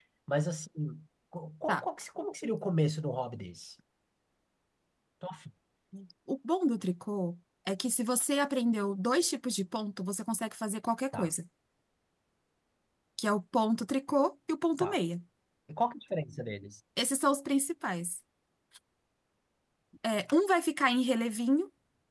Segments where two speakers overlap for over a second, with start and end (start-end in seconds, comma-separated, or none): none